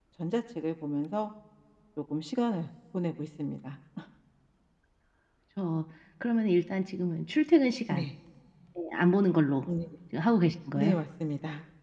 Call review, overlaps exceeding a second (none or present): none